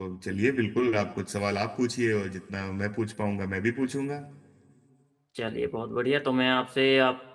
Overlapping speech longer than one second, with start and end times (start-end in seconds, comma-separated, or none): none